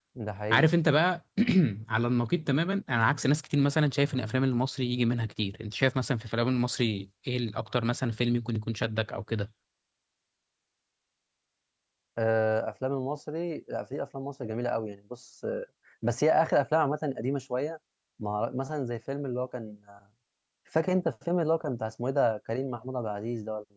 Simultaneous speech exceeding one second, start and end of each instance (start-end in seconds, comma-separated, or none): none